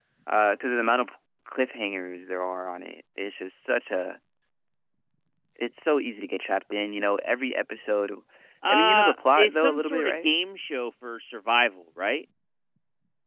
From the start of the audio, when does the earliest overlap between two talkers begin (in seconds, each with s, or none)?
8.7 s